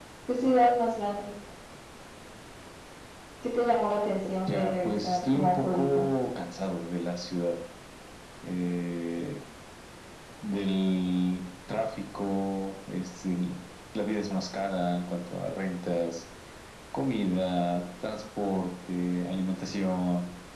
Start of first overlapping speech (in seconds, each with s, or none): 4.5 s